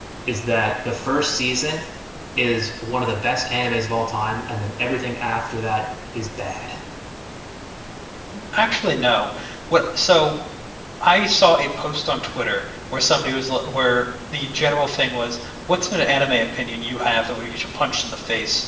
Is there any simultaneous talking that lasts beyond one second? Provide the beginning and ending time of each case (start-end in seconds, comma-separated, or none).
none